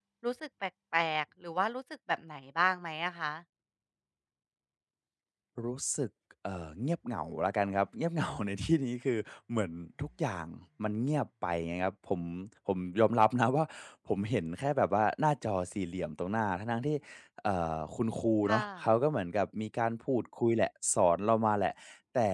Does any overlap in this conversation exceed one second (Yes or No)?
No